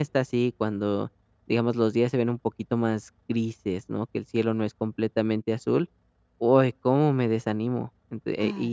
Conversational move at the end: listening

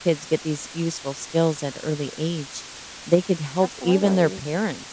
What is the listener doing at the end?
listening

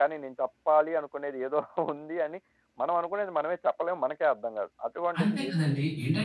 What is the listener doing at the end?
taking over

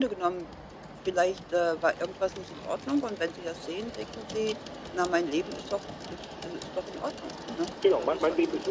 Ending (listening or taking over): taking over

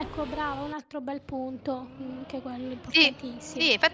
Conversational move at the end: taking over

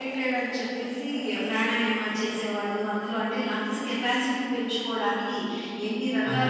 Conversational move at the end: listening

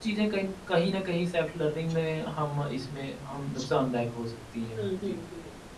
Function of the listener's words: taking over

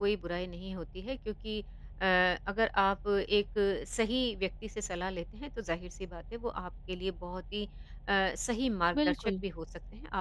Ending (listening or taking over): listening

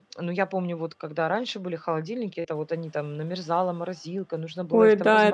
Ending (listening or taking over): taking over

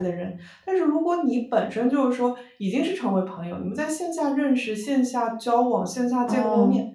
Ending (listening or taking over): listening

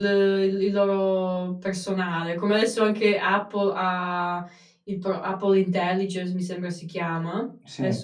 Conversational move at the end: listening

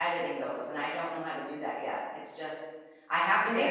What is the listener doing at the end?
taking over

